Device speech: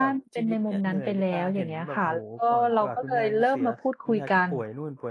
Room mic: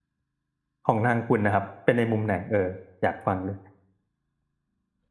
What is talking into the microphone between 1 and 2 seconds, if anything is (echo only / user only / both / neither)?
user only